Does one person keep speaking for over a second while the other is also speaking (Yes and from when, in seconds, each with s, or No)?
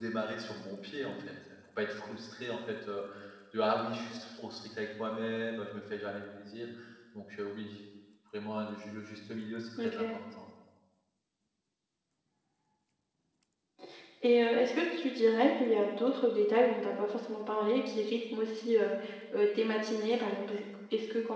No